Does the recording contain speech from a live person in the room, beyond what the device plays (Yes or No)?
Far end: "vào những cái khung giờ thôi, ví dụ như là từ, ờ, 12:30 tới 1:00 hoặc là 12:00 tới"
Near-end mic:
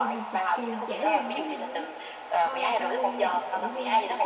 Yes